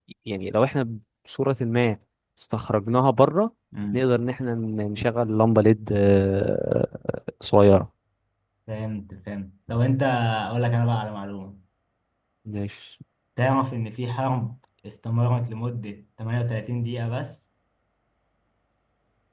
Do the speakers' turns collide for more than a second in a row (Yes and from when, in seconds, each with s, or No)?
No